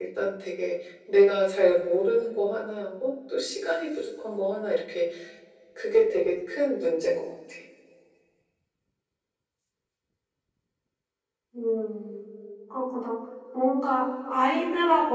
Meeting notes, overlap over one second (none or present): none